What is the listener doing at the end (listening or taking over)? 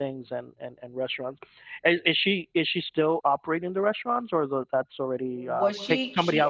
taking over